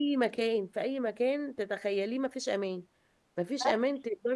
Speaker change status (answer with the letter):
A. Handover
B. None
B